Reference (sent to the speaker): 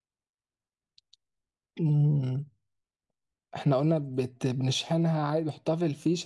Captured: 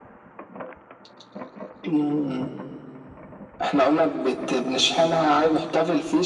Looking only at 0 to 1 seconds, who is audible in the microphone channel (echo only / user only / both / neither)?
neither